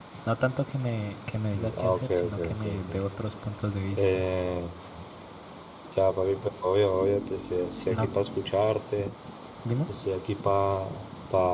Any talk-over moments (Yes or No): Yes